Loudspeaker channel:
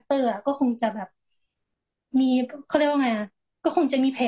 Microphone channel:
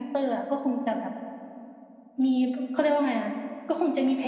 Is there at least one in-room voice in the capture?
No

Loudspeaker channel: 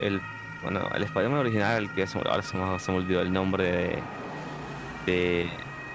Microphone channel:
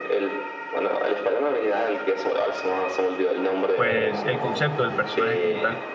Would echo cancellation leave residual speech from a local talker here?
Yes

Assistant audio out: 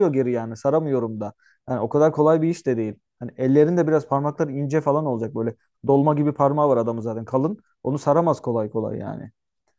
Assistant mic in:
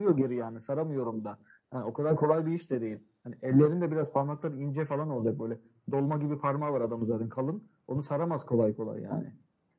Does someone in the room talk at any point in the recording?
No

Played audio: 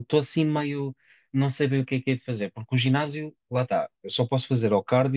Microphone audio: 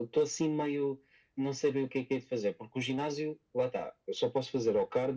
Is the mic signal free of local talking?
Yes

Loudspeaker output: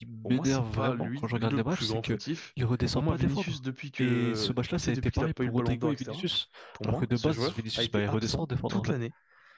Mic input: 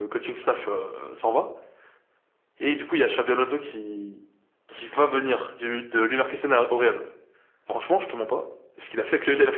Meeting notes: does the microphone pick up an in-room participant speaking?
Yes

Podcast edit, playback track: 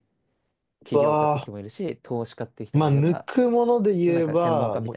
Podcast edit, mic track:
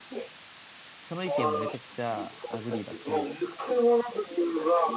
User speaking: Yes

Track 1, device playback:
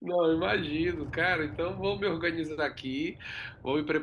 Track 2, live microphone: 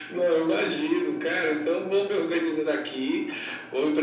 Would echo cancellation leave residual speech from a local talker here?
No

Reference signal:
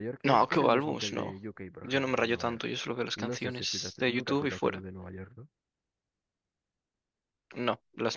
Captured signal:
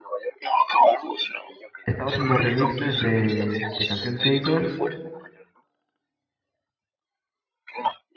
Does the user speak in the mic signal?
Yes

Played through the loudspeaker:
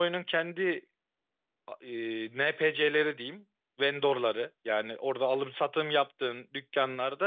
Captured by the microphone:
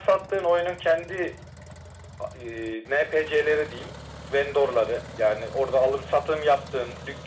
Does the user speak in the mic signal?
No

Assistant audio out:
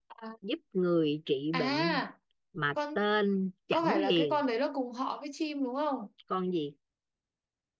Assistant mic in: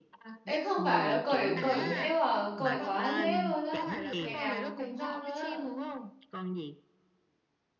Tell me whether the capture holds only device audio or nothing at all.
No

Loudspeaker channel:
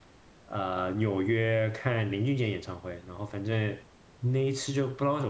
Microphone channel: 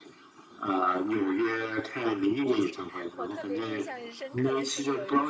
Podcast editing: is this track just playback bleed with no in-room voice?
No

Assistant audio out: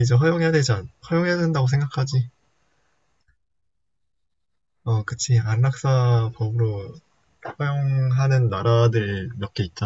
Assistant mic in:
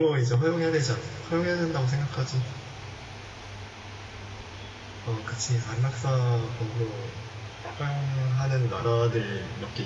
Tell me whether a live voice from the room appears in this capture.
No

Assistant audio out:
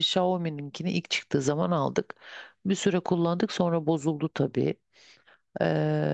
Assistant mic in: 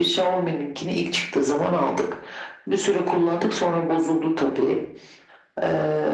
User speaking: No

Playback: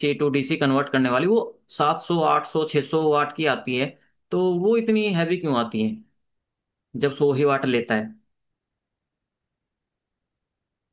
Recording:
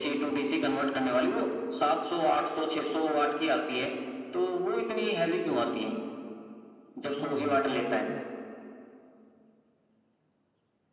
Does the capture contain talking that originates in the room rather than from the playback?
Yes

